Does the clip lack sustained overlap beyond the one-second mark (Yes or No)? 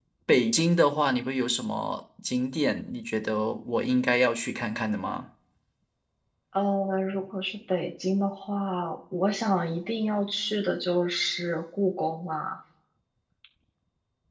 Yes